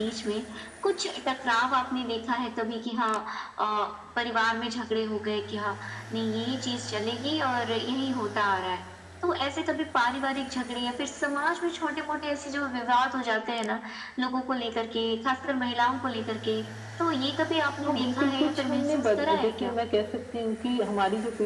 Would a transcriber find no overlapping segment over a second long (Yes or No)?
No